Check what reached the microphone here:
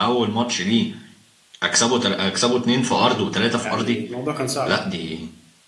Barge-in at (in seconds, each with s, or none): 3.6 s